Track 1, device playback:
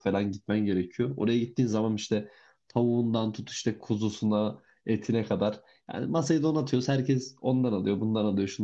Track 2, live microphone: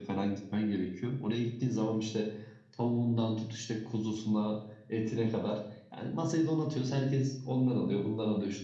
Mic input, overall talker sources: echo only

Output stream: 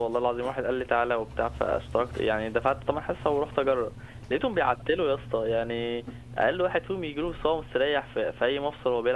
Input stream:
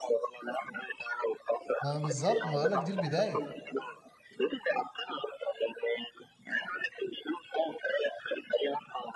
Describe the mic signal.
both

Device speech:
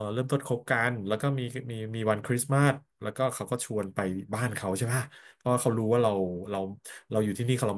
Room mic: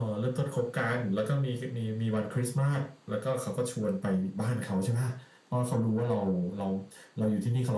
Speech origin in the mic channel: echo only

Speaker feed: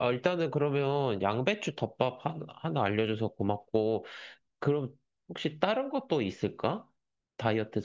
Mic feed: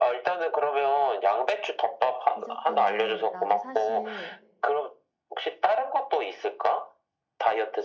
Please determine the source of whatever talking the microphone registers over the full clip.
both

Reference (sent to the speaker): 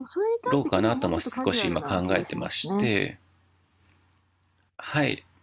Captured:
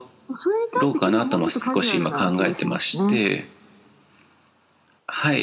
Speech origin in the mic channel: echo only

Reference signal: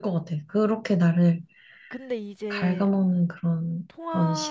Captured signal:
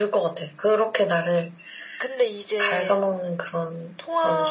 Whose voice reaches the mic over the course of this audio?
echo only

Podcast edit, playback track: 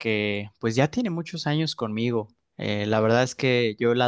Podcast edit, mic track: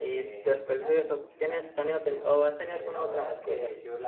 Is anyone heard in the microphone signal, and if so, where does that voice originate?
both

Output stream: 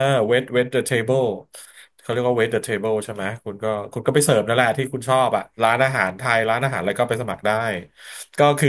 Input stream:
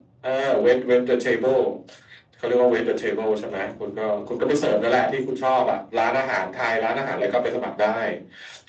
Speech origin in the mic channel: echo only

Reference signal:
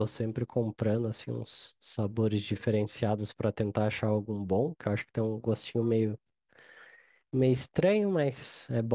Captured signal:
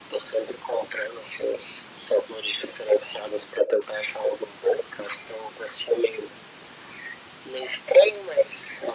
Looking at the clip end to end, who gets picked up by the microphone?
echo only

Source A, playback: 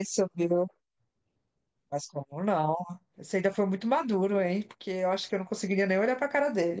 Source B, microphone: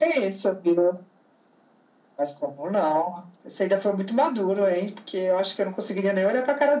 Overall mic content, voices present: echo only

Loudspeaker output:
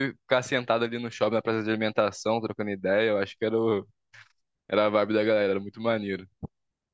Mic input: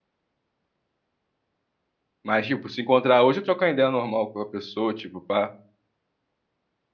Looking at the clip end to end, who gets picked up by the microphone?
user only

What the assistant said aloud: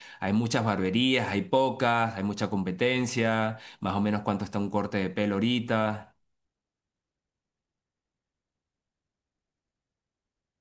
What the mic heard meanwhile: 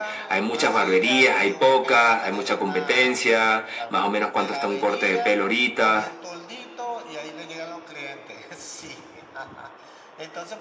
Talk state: both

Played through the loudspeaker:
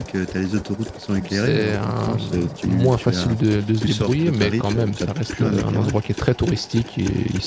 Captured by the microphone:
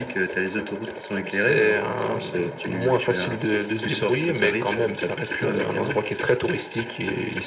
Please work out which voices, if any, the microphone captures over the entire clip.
echo only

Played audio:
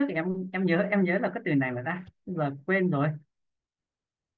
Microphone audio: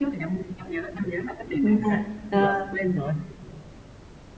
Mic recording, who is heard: both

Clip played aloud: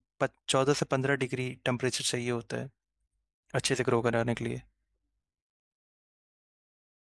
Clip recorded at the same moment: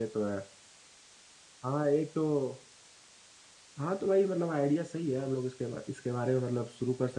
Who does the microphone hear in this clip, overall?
user only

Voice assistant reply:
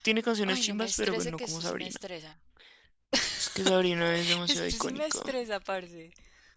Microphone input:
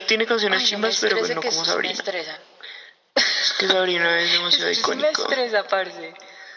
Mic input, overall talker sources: echo only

